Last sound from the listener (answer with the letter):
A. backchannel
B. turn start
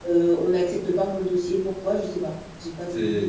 B